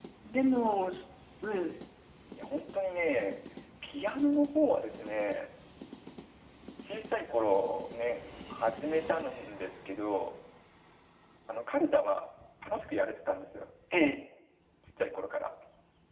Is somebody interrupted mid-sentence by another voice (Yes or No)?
No